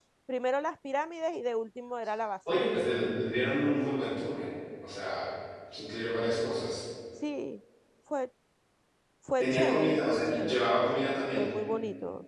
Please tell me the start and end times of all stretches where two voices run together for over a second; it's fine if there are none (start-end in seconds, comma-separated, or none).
9.4-10.7